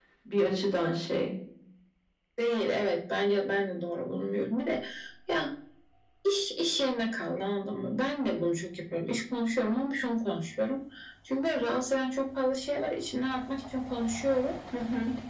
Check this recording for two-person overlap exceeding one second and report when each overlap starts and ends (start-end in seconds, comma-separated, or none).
none